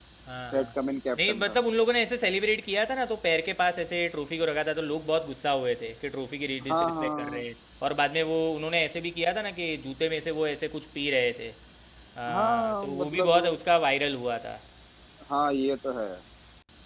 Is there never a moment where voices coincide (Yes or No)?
No